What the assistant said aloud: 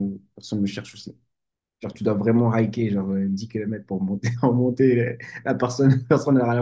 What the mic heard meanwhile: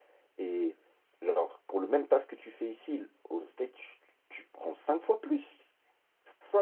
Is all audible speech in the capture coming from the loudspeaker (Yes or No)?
No